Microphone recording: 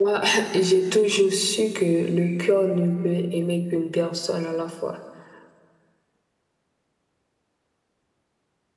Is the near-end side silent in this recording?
No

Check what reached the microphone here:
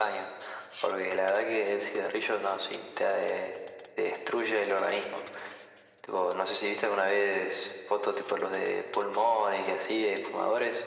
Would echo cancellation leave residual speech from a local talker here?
No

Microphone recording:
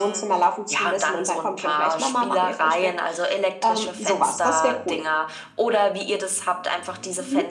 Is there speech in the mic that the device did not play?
No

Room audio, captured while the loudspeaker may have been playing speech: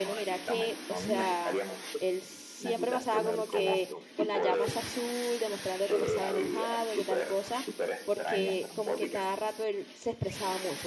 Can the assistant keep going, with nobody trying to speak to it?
No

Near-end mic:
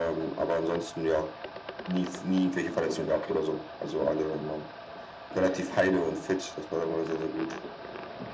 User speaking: No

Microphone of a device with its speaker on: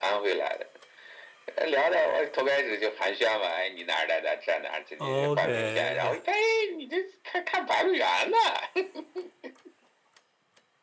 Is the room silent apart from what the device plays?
No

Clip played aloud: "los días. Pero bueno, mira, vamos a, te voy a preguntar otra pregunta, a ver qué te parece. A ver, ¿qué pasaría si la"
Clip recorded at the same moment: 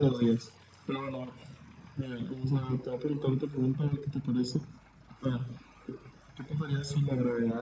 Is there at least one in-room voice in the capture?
No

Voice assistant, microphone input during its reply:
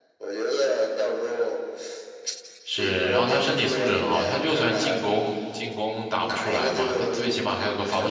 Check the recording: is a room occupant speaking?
Yes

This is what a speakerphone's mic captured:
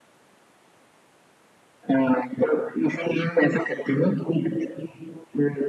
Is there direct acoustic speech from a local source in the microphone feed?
No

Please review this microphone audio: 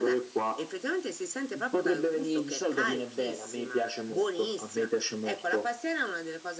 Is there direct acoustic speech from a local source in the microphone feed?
No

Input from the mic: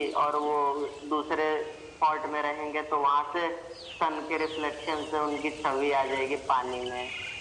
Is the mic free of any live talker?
Yes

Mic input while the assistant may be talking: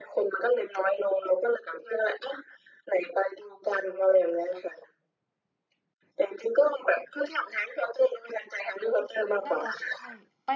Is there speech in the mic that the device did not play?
Yes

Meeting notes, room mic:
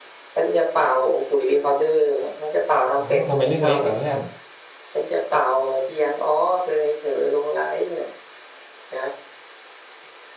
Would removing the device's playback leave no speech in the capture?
No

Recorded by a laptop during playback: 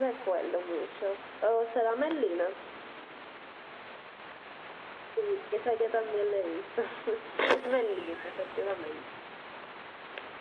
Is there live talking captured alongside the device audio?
Yes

